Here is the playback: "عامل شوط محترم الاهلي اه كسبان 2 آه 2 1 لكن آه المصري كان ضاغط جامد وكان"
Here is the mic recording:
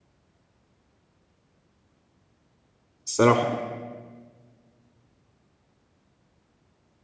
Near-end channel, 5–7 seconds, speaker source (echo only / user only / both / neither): neither